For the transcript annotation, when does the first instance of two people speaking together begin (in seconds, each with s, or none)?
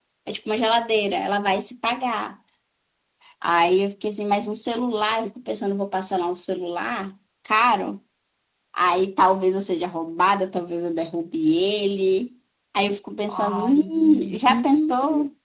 13.3 s